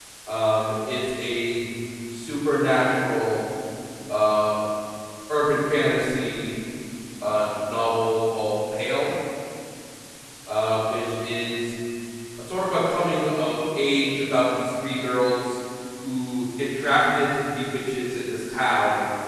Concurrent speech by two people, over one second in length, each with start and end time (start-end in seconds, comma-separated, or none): none